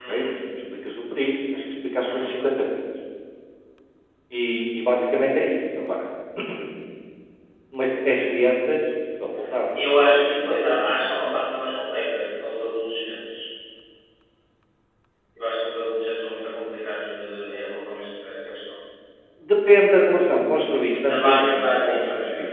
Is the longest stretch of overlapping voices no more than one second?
No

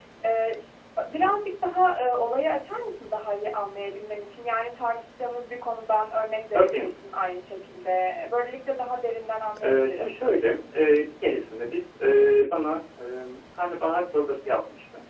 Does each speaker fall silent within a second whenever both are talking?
Yes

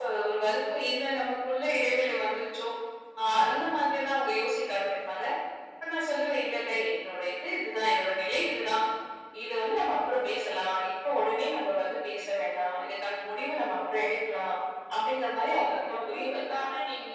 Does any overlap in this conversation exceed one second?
Yes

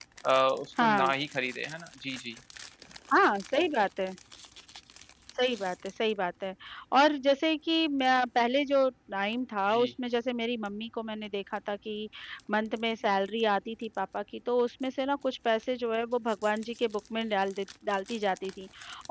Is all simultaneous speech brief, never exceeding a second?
Yes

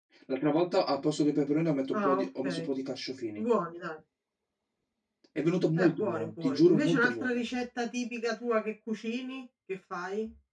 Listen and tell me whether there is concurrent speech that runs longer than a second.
Yes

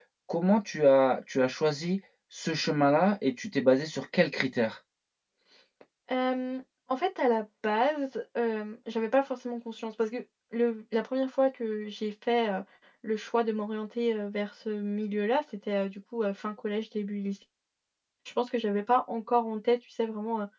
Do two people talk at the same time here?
No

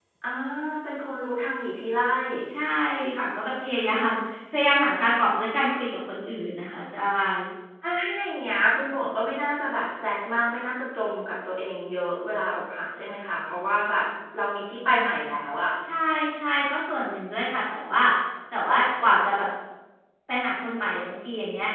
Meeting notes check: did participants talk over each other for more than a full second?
No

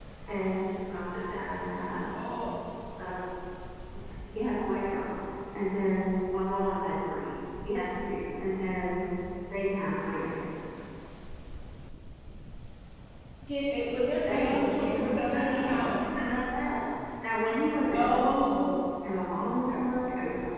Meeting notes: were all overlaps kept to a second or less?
No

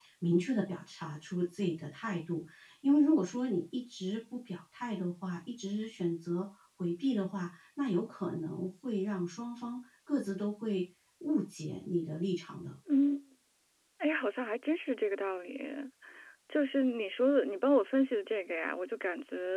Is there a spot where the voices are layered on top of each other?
No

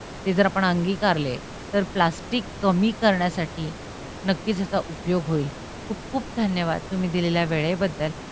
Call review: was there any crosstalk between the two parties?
No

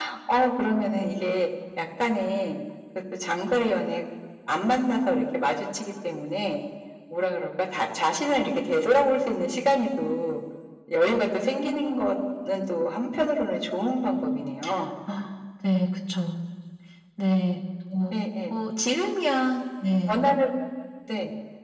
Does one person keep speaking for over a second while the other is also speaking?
No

